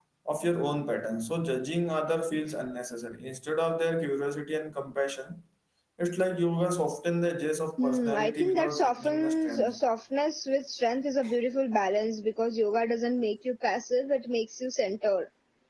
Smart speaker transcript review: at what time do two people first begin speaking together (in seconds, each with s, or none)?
7.8 s